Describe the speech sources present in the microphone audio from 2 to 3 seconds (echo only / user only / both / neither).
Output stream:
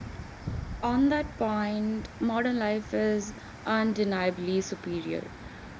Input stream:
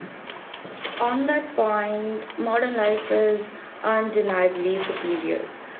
echo only